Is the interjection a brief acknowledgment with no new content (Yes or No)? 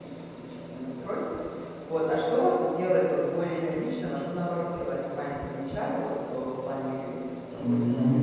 No